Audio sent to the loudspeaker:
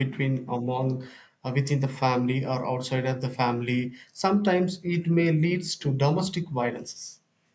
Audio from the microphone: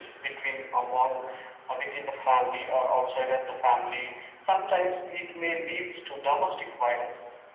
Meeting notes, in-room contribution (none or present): none